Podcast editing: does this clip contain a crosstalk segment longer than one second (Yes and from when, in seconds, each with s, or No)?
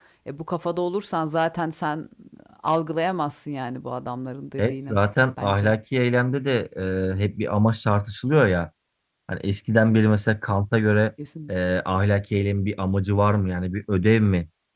No